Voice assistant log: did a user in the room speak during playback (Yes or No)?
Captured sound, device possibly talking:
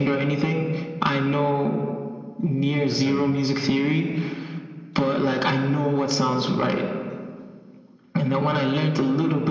Yes